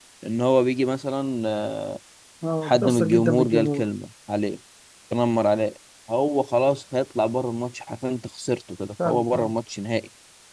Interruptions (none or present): present